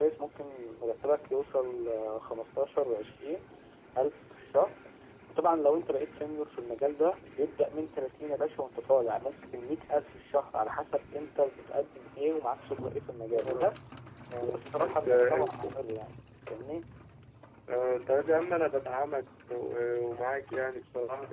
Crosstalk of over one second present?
Yes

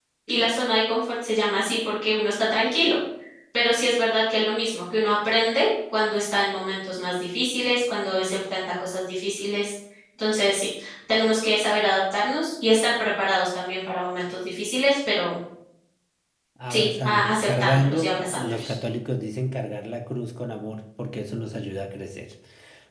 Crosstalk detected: Yes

